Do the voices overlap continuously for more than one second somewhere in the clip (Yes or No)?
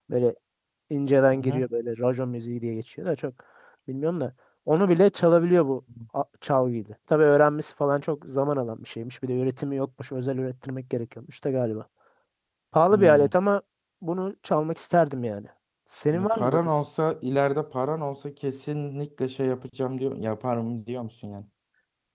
No